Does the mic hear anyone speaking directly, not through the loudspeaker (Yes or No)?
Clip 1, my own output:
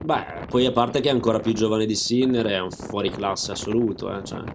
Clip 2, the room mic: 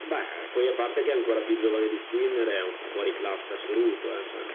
No